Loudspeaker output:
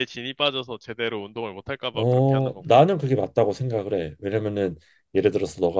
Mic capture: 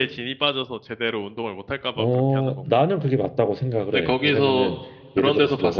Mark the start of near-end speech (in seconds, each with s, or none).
3.9 s